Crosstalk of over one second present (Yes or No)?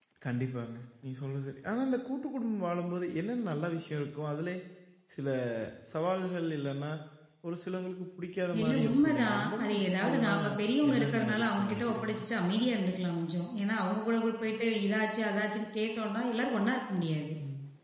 Yes